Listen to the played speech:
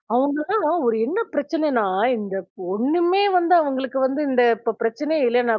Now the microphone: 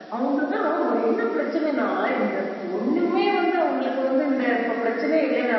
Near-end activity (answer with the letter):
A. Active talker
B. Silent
B